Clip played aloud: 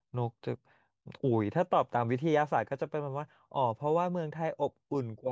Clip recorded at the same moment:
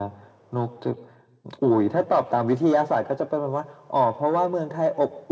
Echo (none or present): present